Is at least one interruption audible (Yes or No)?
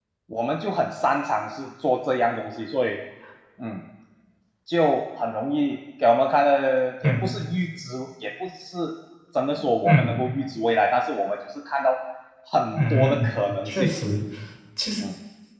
Yes